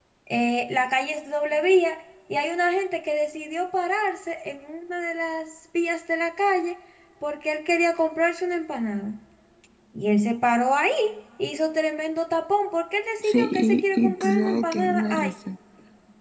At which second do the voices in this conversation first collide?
13.2 s

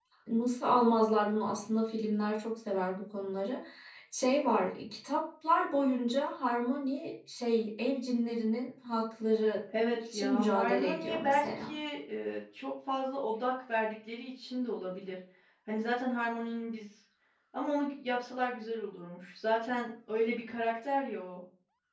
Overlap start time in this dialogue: 9.7 s

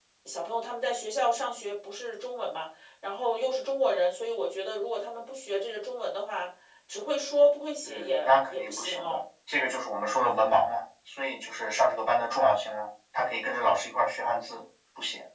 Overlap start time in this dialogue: 7.8 s

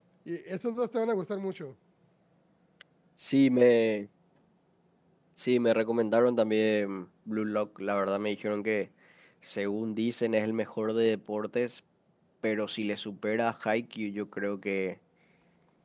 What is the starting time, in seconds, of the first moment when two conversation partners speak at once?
none

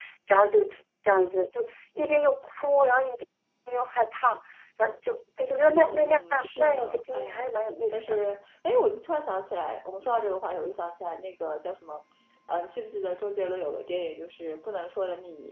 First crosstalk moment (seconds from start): 5.8 s

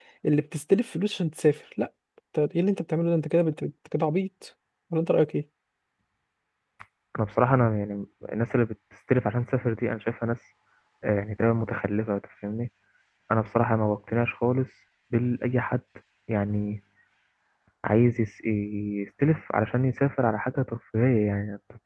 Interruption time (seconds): none

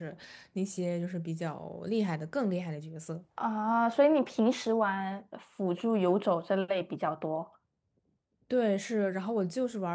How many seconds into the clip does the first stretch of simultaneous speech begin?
none

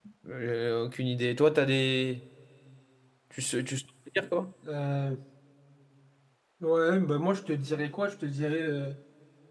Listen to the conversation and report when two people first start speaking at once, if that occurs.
none

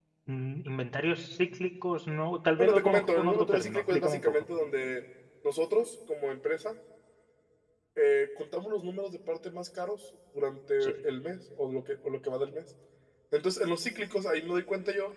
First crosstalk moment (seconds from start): 2.6 s

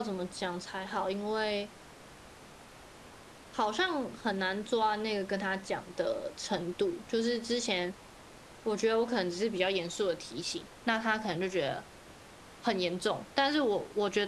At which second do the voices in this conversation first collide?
none

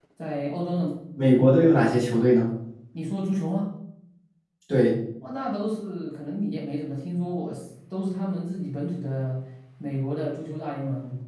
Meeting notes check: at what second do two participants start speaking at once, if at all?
none

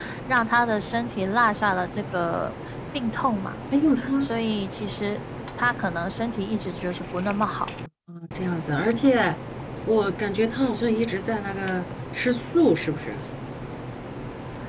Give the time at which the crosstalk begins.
none

